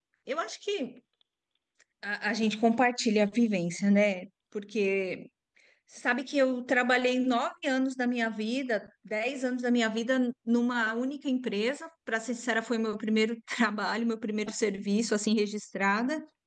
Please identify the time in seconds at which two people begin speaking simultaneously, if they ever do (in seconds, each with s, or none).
none